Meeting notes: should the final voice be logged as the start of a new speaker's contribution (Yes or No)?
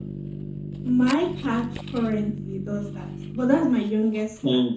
Yes